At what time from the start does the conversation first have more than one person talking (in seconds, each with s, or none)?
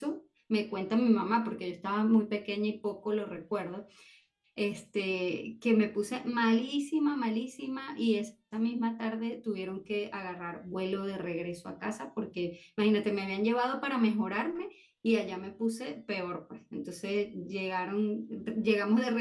none